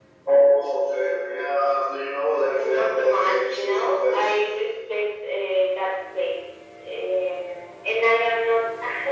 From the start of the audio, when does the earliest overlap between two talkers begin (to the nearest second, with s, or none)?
2 s